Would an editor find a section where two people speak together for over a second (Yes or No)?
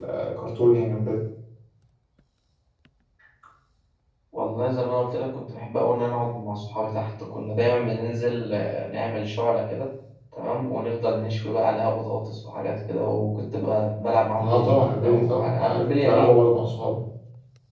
Yes